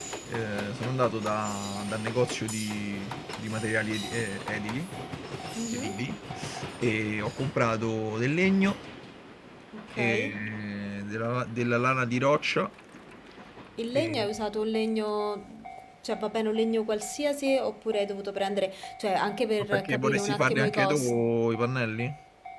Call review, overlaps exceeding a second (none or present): present